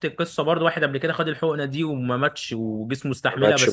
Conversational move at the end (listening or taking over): listening